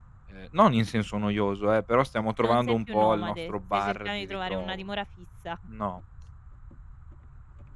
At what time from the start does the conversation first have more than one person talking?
2.4 s

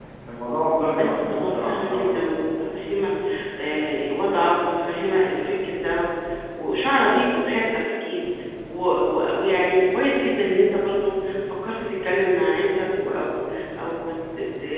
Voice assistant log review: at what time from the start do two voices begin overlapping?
1.0 s

